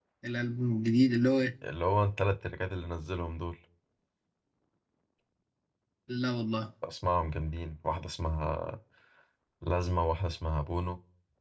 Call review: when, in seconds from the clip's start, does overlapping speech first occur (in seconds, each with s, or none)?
none